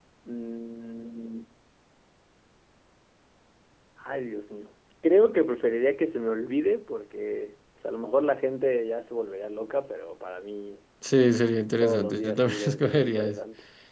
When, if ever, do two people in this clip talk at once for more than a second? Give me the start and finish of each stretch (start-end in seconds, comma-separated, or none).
11.8-13.4